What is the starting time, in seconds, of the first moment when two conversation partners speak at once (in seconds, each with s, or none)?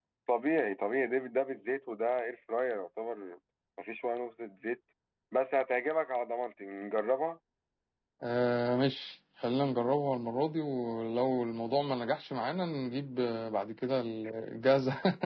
none